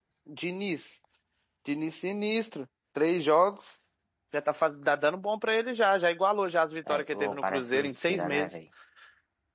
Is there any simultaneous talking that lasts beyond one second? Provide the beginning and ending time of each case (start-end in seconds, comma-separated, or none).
7.0-8.5